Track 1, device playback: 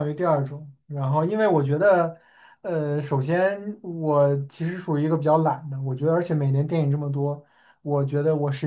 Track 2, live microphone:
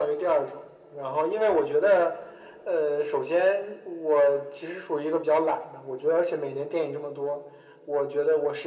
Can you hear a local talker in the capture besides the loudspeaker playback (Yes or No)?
No